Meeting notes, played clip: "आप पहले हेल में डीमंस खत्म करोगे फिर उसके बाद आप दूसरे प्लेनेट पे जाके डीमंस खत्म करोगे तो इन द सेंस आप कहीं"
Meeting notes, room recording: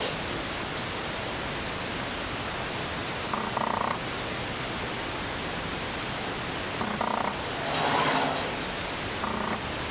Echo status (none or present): none